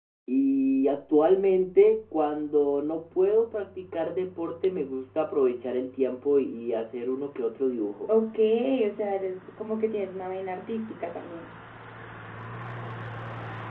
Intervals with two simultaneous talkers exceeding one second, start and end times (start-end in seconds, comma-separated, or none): none